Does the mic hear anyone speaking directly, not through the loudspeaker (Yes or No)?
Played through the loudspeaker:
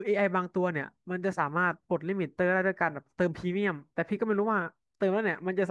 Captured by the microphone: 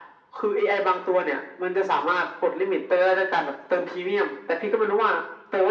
No